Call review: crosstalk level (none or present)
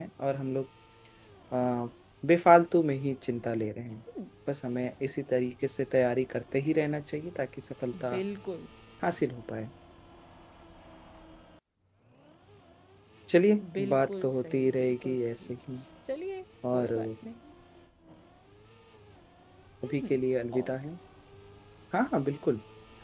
present